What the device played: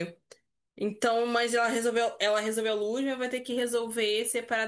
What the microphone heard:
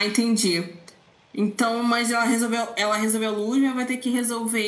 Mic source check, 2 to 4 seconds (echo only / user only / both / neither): echo only